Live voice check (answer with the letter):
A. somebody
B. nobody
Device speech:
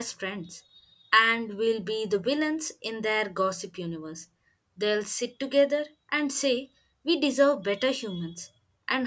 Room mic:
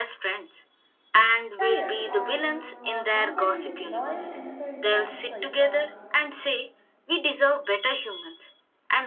A